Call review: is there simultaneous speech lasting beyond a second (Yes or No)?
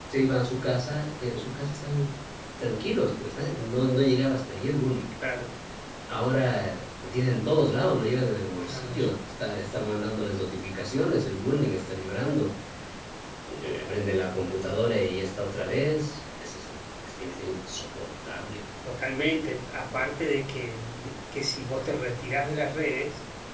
No